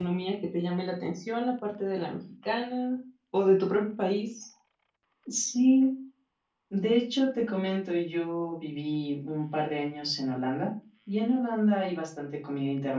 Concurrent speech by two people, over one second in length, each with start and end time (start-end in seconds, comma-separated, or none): none